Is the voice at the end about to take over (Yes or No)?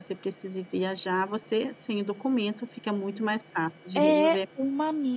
Yes